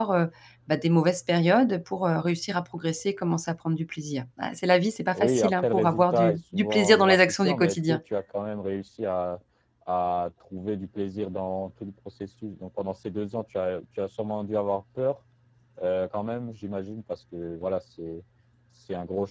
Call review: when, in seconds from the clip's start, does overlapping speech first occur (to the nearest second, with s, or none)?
5 s